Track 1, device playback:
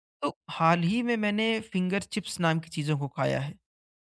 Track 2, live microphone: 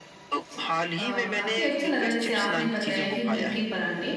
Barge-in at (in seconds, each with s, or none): 0.5 s